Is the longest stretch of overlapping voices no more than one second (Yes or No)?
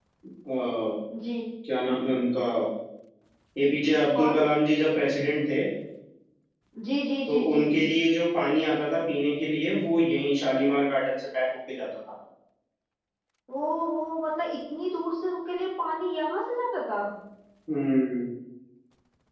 Yes